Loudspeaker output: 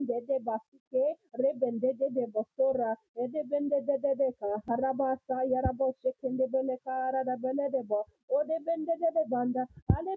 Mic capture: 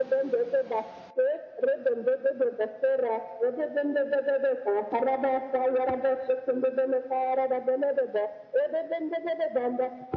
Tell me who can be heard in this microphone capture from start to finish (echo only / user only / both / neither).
echo only